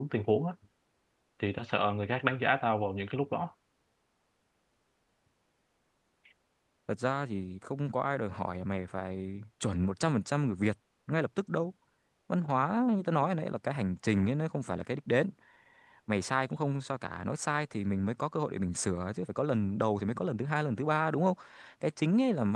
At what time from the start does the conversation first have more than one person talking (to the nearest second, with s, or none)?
none